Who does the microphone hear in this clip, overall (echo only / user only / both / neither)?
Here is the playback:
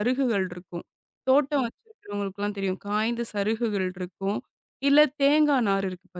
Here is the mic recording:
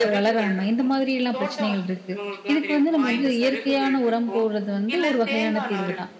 both